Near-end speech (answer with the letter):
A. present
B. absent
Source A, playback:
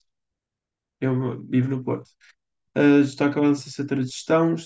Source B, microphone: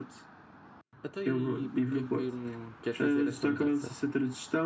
A